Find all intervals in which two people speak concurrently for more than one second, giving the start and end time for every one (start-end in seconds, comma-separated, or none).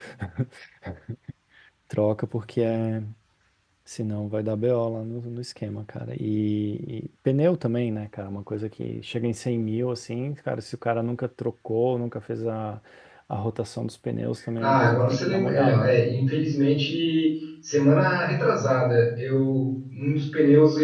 14.6-16.1